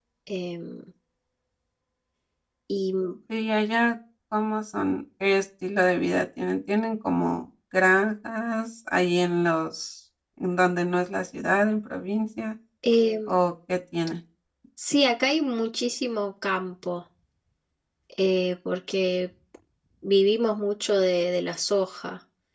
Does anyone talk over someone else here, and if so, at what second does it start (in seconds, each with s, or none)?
none